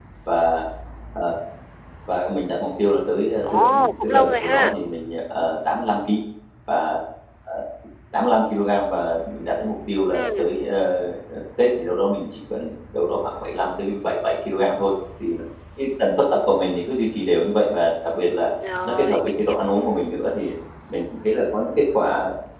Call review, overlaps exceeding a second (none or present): present